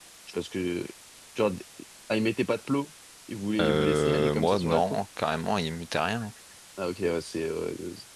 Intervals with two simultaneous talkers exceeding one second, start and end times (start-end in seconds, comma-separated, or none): 3.6-5.0